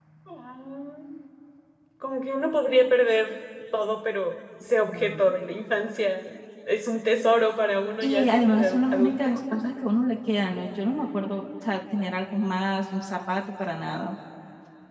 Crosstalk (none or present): present